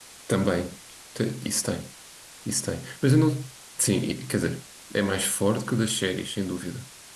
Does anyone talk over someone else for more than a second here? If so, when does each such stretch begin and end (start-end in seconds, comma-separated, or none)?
none